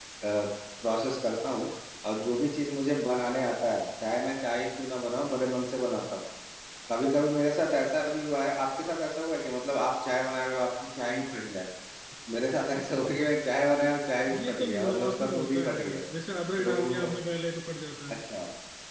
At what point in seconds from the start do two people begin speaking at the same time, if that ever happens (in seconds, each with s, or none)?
14.5 s